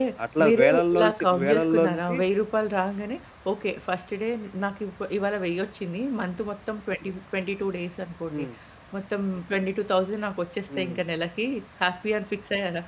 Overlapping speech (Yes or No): Yes